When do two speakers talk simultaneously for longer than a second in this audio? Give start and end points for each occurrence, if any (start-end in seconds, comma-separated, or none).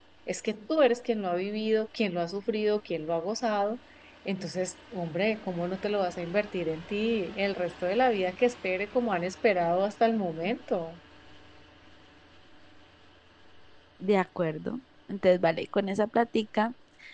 none